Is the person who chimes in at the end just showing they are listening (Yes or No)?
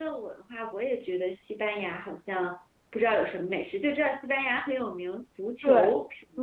No